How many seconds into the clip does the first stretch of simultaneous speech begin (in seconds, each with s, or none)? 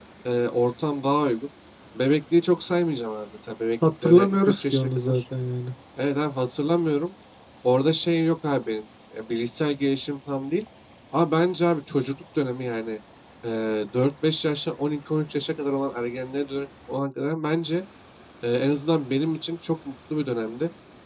3.8 s